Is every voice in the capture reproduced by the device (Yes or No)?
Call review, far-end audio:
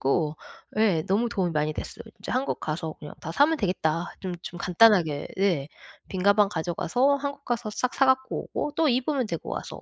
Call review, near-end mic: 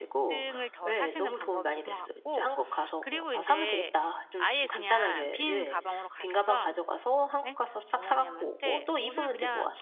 No